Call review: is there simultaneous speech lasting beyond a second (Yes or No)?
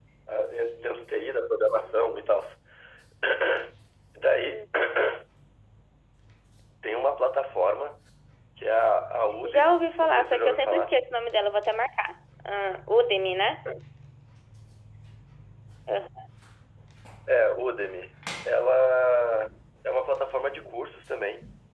Yes